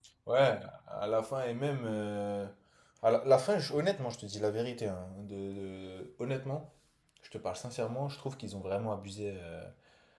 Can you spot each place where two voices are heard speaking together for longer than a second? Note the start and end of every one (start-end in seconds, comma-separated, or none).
none